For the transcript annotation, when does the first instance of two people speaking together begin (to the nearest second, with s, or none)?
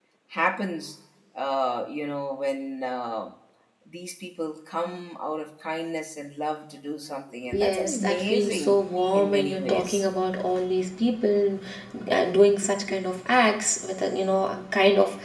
8 s